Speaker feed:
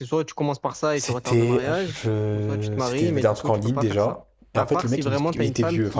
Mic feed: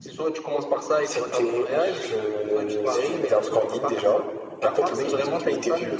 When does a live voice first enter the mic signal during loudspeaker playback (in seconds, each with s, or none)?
none